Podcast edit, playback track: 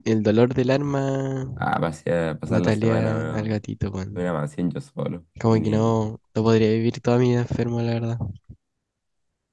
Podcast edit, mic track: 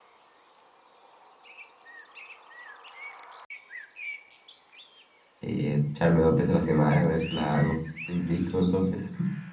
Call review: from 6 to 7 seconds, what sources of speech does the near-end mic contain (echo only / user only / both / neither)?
user only